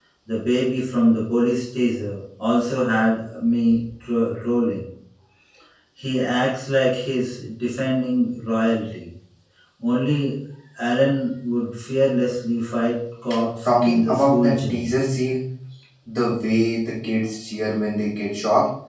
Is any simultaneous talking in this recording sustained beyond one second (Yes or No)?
Yes